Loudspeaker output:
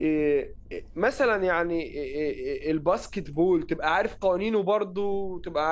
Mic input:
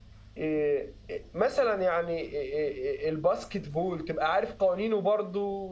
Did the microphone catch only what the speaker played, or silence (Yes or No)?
Yes